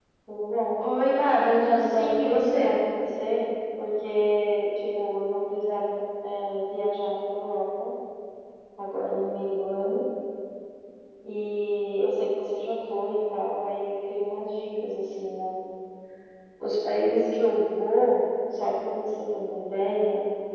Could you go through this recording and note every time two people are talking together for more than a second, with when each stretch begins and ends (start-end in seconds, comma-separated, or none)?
1.5-2.8